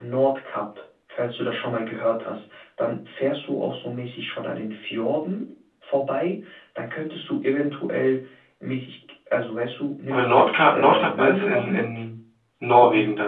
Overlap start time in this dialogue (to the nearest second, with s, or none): 10 s